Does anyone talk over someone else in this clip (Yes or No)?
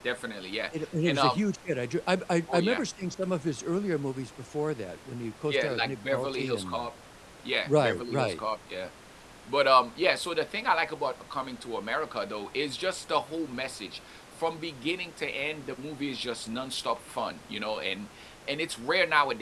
Yes